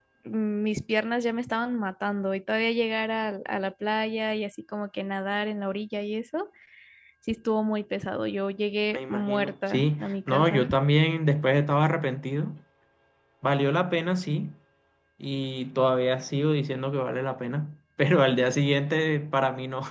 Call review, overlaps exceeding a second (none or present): present